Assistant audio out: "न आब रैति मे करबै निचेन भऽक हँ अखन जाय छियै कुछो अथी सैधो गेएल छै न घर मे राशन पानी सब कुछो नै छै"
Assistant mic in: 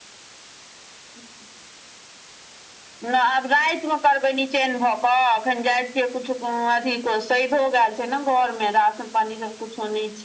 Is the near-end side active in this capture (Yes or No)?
No